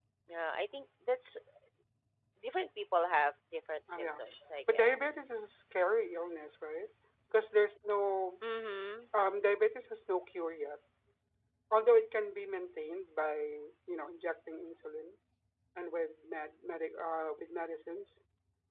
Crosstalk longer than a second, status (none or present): none